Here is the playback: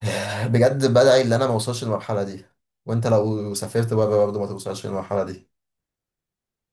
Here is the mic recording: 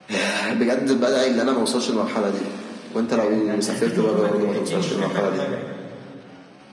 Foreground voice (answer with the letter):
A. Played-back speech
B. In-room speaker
A